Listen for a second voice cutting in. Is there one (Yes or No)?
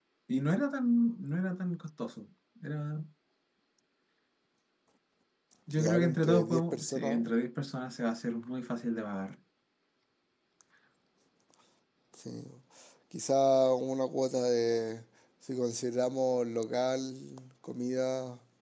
Yes